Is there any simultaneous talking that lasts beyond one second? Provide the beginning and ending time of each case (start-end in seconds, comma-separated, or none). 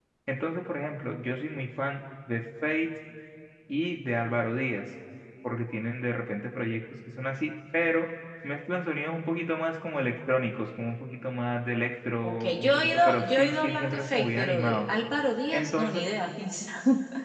12.2-14.8